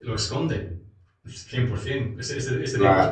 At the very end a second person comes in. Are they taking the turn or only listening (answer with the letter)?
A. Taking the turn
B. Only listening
B